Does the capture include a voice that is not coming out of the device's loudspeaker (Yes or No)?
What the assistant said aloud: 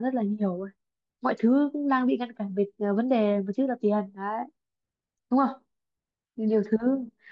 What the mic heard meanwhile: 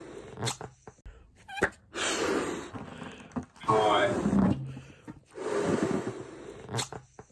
Yes